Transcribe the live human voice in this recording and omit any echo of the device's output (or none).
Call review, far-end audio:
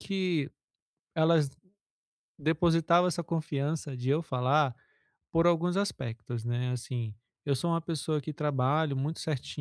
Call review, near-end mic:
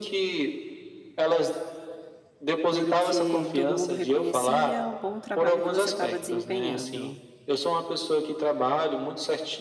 porque todo mundo reconhecia o bom trabalho que você estava desempenhando.